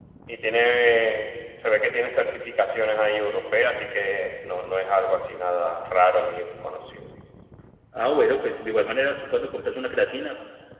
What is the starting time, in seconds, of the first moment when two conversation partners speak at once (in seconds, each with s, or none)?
none